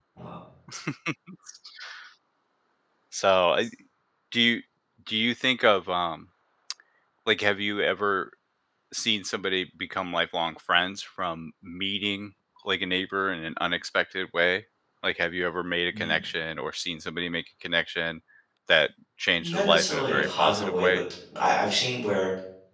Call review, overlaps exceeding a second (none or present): present